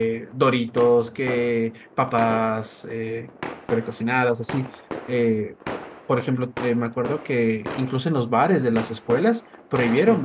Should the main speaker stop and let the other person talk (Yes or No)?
No